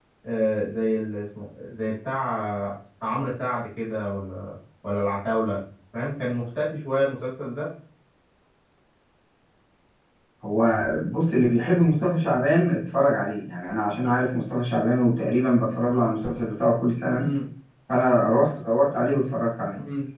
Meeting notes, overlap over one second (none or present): none